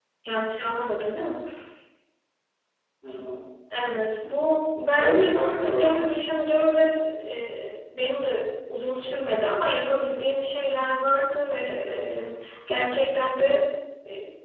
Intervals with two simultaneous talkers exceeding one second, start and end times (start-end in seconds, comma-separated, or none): 4.9-6.4